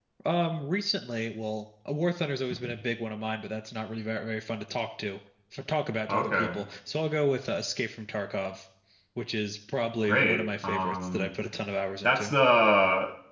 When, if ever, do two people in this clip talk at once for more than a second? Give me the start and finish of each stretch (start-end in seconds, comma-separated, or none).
10.0-11.3